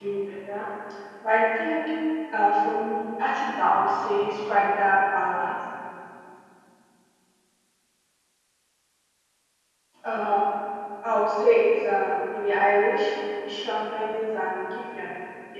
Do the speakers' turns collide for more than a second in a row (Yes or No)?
No